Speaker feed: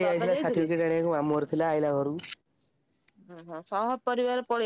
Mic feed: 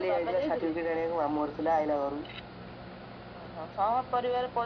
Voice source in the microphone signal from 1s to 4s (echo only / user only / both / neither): echo only